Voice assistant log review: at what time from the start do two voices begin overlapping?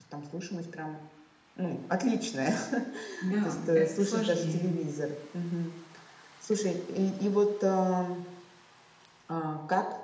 3.4 s

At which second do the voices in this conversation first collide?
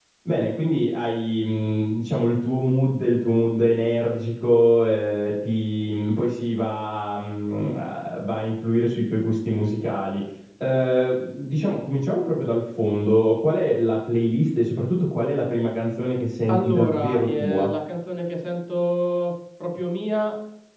16.5 s

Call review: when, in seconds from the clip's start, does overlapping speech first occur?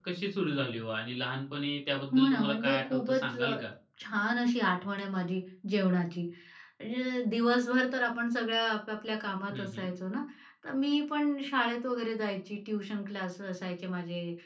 2.1 s

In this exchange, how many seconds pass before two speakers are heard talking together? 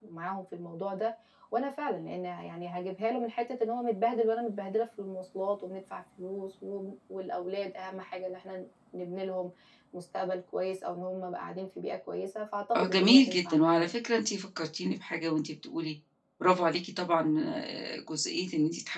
12.7 s

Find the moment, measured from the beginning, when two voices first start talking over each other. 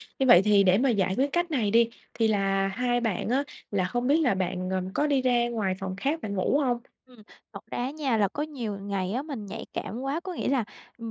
none

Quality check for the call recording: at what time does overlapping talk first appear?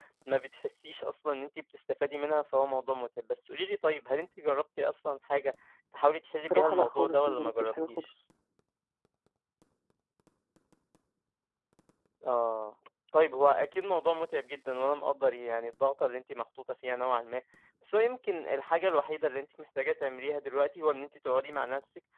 6.4 s

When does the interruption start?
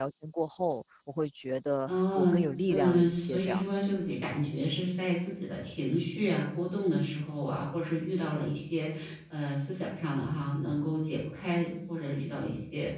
1.9 s

